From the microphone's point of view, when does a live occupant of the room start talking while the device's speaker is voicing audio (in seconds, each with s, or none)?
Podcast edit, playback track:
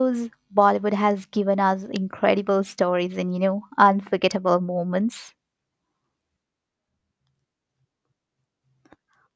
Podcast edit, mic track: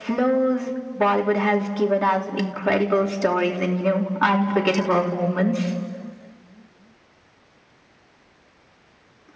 none